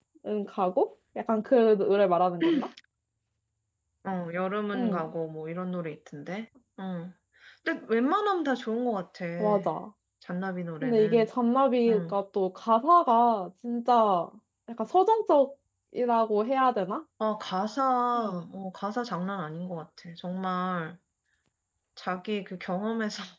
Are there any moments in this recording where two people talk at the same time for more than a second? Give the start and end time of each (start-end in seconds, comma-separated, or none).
none